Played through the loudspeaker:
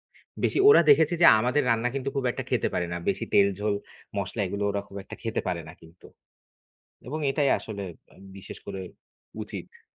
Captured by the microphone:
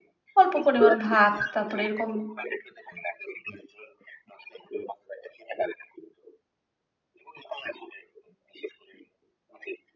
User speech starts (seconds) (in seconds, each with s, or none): 0.4 s